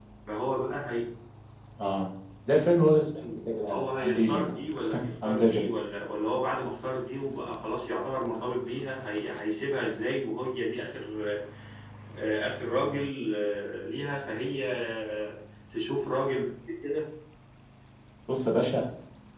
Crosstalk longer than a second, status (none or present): present